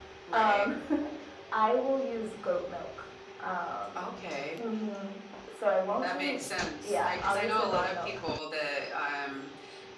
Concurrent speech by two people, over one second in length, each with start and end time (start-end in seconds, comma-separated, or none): 6.8-8.1